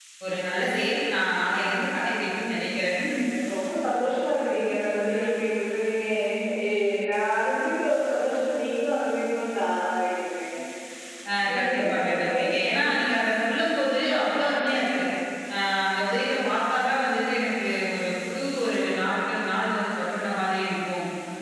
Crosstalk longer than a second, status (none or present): present